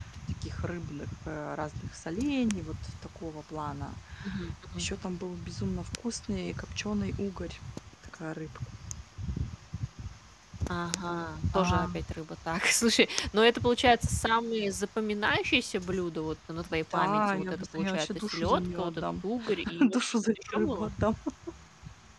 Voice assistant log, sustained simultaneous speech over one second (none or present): present